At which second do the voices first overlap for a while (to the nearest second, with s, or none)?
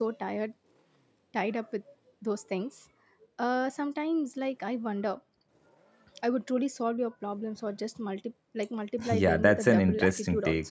9 s